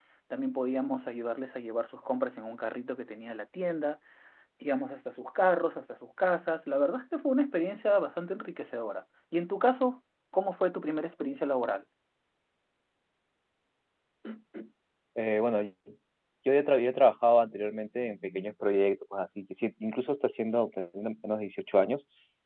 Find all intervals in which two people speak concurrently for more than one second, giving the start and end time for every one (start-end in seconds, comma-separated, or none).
none